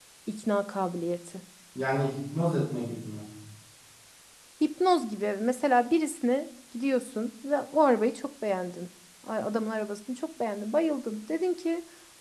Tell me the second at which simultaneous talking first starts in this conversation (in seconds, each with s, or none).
none